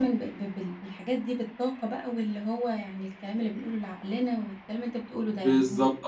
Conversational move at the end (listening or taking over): taking over